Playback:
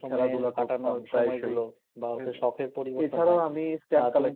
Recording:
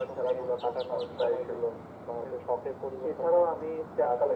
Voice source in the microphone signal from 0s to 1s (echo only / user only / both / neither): echo only